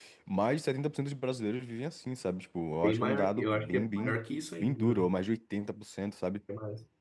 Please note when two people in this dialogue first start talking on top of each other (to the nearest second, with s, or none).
3 s